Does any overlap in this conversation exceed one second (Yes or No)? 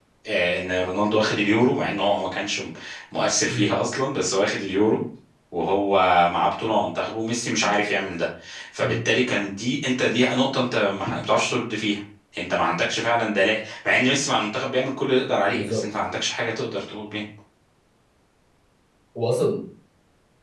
No